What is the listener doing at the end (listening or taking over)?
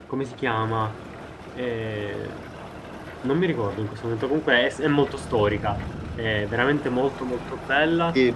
taking over